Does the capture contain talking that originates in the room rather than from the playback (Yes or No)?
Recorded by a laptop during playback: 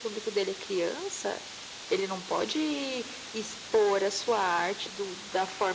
No